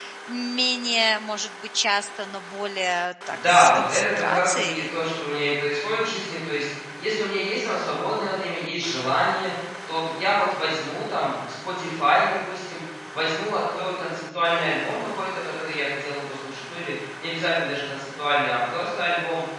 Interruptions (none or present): present